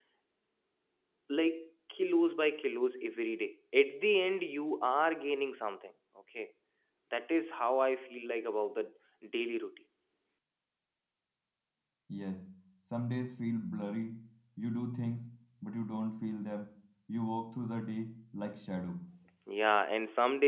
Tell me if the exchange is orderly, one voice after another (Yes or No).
Yes